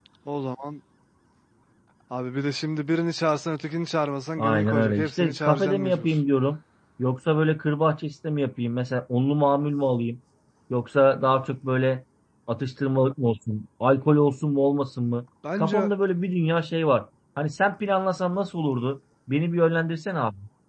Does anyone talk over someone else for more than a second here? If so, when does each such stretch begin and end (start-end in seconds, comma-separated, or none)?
4.4-6.2